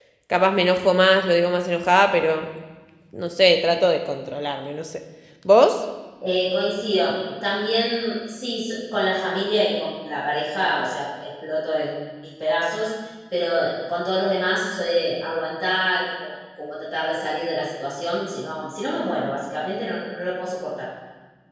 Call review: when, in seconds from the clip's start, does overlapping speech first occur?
none

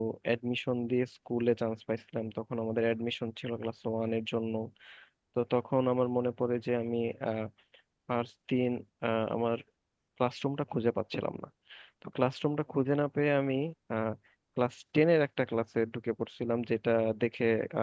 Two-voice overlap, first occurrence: none

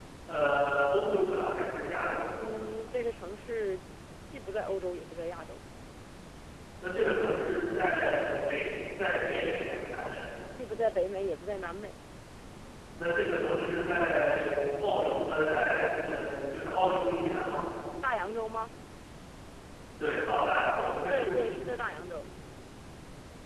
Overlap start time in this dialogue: none

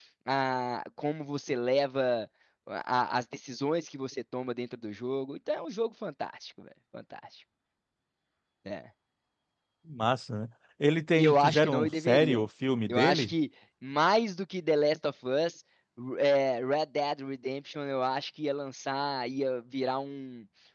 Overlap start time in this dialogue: 11 s

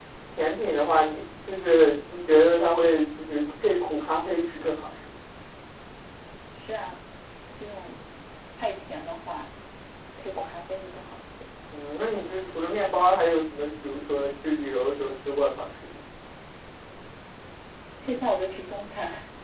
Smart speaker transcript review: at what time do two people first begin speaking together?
none

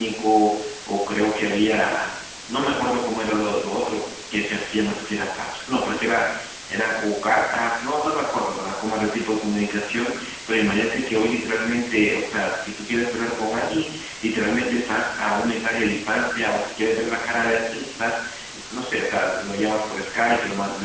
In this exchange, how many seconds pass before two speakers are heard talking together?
none

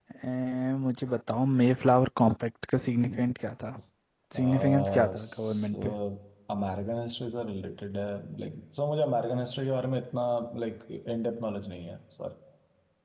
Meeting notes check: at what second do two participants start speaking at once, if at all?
4 s

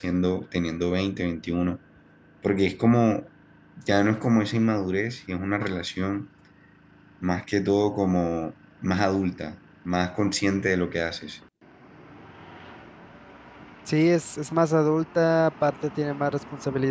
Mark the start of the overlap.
none

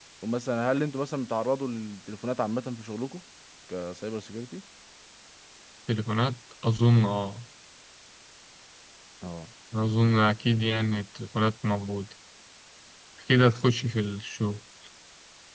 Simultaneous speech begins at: none

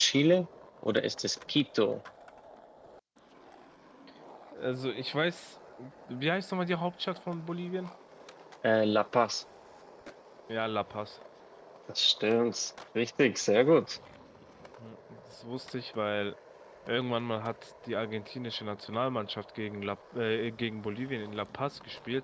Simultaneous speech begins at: none

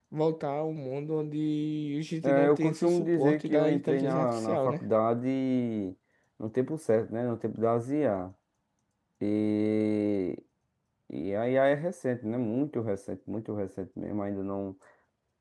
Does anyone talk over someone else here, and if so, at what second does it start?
2 s

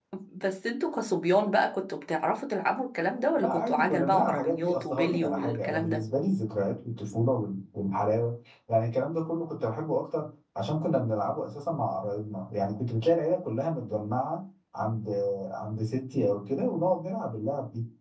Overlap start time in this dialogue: 3 s

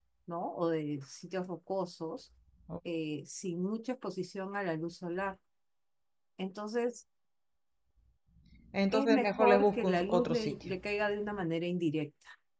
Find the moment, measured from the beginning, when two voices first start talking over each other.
9 s

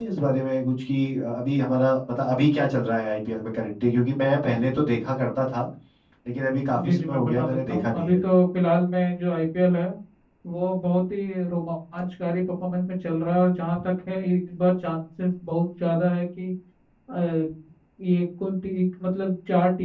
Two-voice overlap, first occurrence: 7 s

